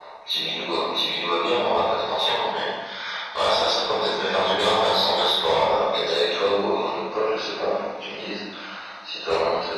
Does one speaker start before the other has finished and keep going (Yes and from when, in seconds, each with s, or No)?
No